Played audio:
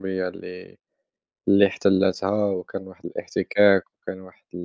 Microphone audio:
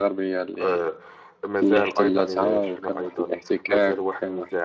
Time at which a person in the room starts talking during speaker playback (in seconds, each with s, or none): 0.6 s